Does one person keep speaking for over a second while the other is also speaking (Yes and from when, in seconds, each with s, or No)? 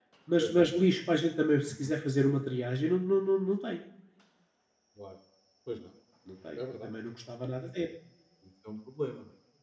No